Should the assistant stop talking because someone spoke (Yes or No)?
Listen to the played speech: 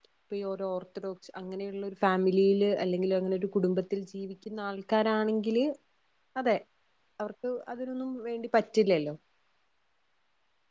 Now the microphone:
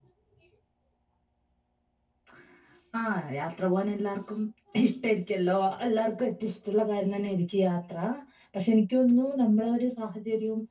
Yes